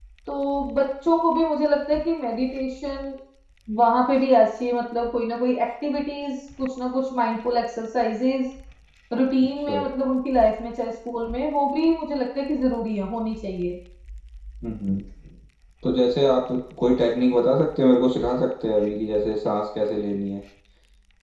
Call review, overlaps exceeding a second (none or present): none